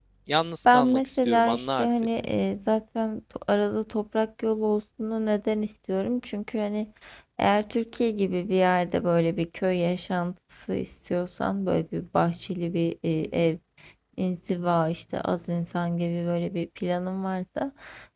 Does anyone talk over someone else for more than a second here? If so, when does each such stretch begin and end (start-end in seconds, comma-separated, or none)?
0.7-1.9